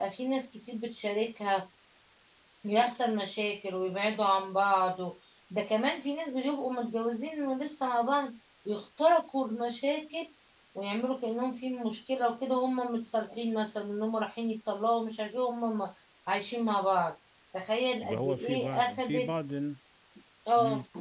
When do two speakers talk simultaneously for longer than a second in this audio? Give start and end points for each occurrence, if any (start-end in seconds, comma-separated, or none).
18.1-19.3